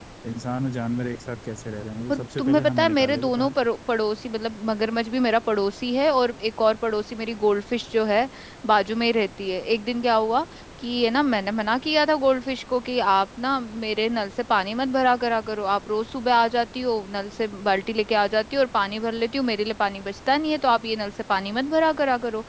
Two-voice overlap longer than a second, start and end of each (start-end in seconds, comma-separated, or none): 2.1-3.6